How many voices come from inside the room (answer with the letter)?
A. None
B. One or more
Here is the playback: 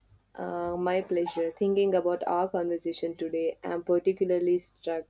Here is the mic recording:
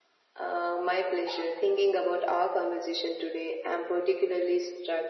A